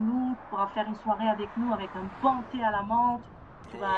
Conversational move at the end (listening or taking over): taking over